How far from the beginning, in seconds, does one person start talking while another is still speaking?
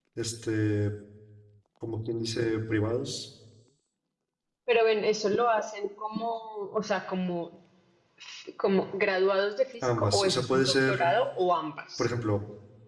10 s

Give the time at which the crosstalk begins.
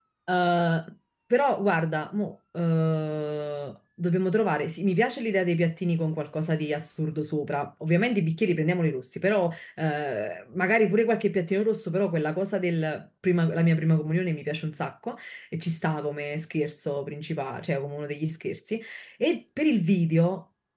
none

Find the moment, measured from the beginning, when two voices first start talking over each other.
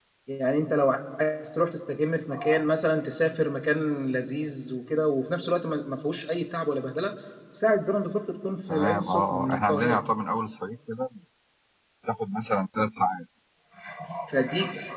9 s

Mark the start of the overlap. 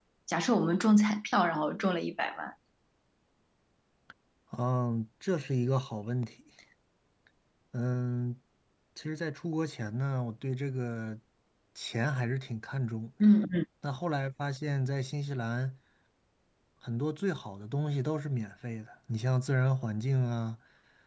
none

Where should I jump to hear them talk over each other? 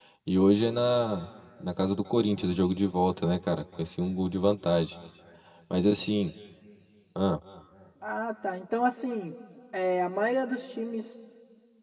none

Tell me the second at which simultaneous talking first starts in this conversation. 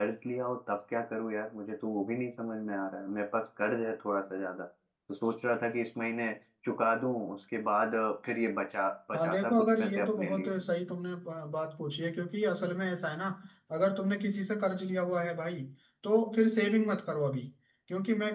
9 s

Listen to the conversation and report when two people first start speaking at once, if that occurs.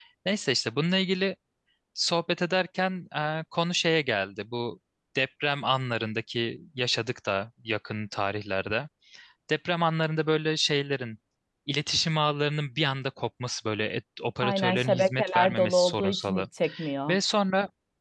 14 s

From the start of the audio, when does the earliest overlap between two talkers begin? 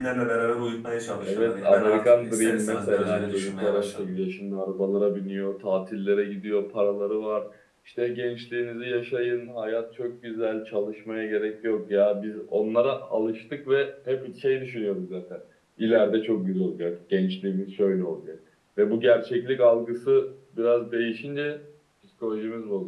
1 s

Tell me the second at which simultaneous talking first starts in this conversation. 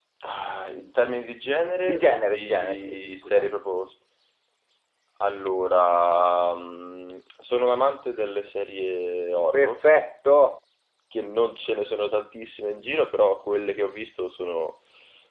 2 s

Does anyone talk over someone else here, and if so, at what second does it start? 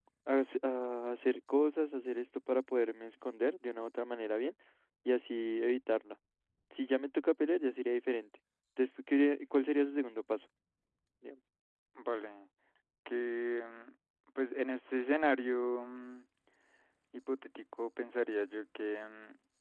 none

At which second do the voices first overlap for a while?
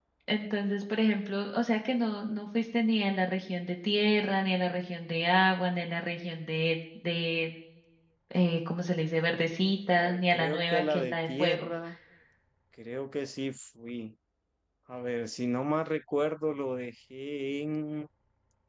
10 s

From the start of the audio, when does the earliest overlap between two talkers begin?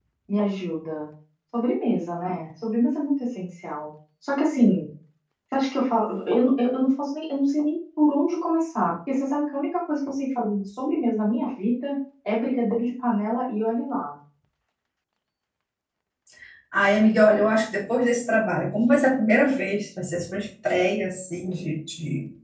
none

